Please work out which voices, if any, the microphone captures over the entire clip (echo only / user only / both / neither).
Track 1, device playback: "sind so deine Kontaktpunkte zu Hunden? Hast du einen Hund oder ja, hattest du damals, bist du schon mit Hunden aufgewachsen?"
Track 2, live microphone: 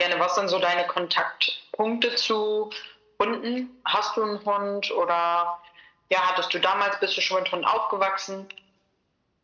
echo only